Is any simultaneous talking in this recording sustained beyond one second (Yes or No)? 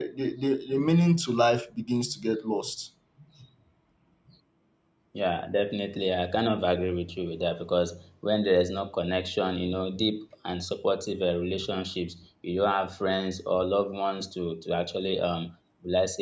No